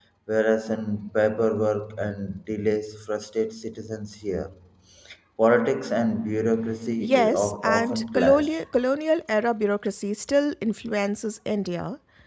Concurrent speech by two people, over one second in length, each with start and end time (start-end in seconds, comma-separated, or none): 7.0-8.5